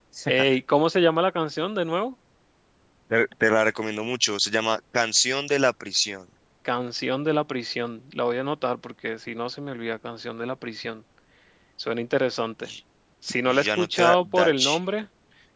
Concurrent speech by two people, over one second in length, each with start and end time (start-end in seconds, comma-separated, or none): 13.4-14.8